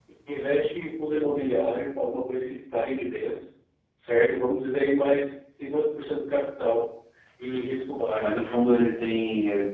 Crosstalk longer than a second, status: none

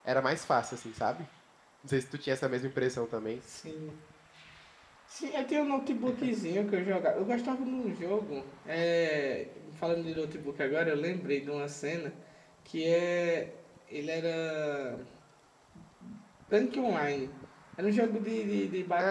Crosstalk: none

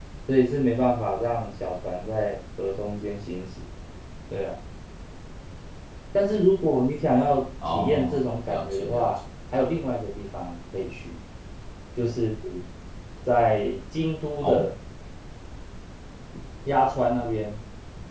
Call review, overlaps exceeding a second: present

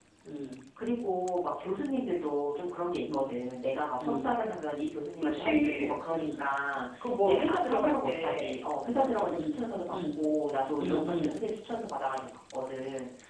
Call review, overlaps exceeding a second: present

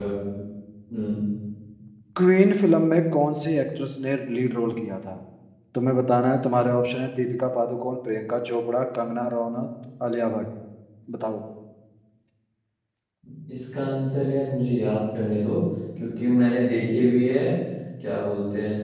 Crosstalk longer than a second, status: none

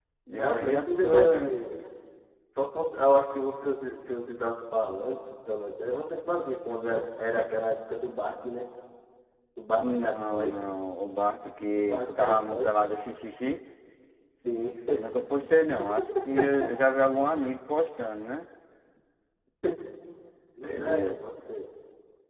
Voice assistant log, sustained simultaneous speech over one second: present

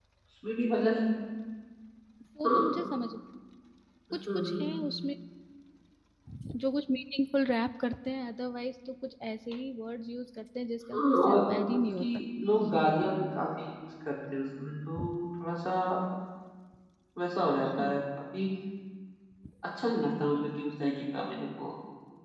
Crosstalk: present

